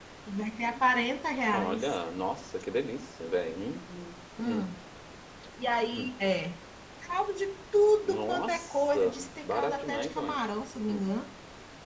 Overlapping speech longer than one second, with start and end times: 8.0-10.4

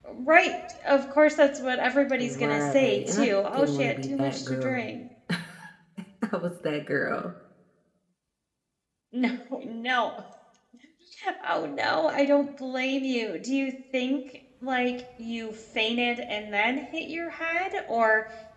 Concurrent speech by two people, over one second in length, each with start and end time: 2.2-4.8

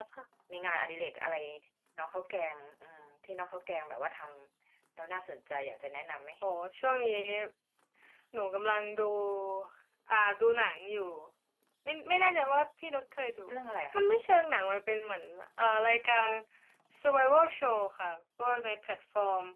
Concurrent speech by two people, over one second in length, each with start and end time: none

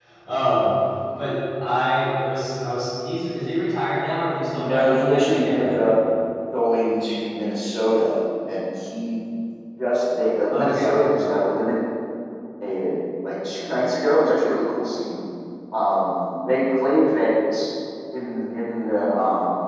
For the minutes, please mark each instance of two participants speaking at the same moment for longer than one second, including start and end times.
4.5-5.9

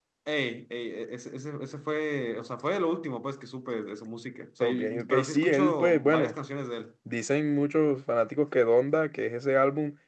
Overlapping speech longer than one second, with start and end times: 4.6-6.3

